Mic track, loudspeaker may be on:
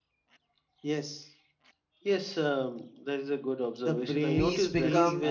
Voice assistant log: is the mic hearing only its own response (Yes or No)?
No